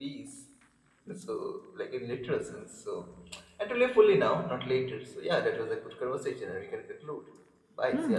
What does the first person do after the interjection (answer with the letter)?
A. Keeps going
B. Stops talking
B